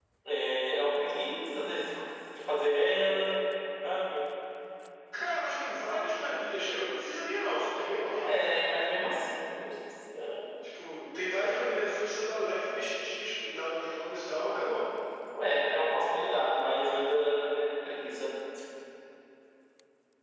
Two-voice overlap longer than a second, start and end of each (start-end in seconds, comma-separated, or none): none